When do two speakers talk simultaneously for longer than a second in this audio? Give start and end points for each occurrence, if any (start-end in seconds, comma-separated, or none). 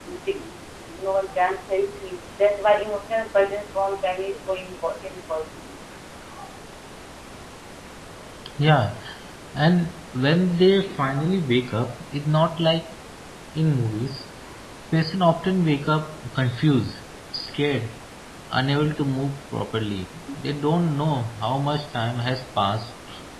none